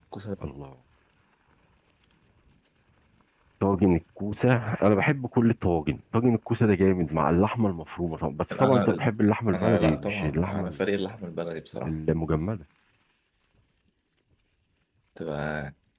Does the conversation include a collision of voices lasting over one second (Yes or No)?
Yes